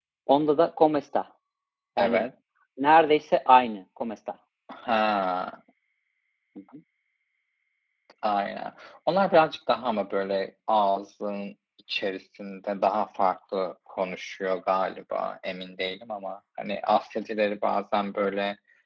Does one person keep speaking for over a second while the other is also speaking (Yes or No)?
No